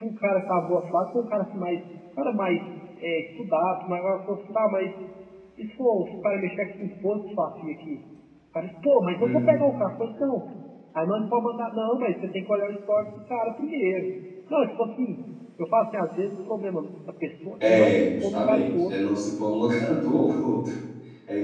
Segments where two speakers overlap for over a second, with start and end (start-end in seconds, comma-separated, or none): 17.7-18.9